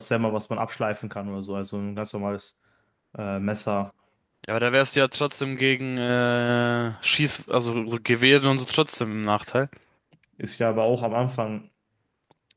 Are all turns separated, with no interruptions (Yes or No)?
Yes